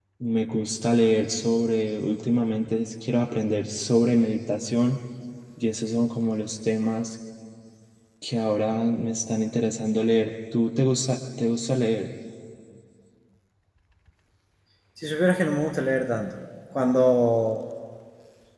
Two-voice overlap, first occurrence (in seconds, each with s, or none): none